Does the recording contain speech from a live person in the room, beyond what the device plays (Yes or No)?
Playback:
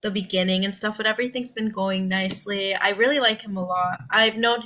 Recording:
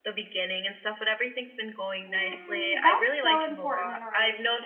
Yes